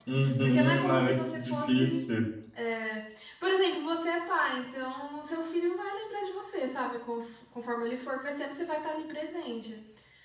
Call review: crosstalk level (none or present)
present